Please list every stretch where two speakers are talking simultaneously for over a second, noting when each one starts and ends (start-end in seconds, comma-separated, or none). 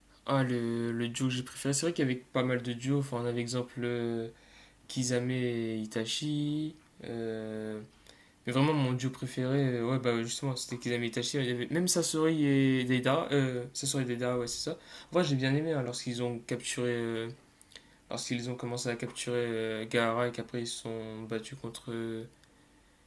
none